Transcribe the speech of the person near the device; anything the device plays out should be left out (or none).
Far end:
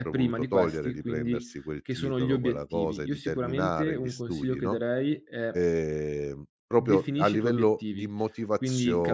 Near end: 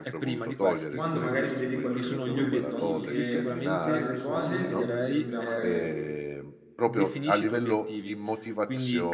quando magari mi dedico allo studio piuttosto che ad altre cose, tendo sempre a magari